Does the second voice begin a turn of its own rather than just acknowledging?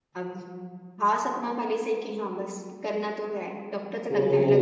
Yes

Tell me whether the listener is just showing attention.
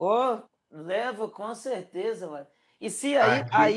Yes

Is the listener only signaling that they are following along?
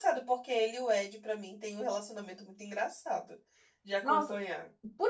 No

